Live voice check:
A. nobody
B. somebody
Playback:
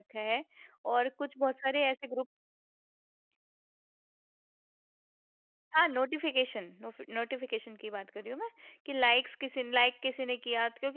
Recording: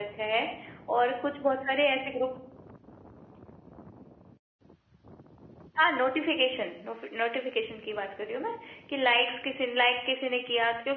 A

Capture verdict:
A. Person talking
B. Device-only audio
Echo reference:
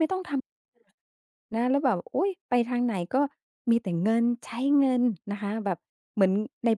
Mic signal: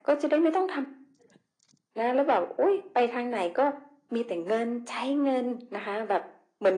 B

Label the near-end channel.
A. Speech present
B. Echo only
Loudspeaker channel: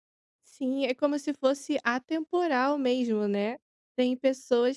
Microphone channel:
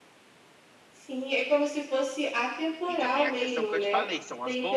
A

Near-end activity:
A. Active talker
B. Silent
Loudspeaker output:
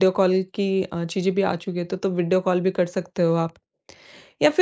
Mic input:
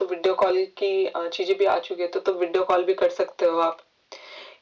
B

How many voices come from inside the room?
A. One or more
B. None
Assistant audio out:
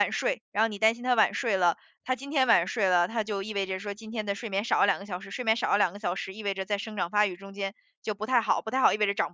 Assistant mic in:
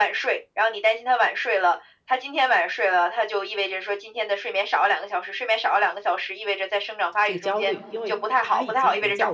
A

